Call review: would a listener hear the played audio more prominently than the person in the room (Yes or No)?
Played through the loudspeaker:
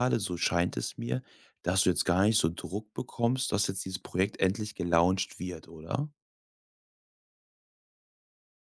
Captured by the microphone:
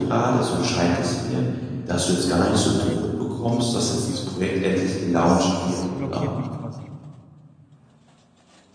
Yes